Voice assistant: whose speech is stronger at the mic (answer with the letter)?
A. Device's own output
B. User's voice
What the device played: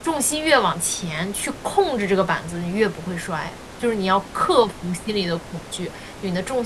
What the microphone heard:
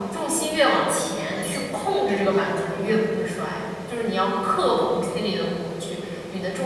A